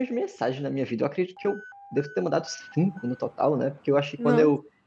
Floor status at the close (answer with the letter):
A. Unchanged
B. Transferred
A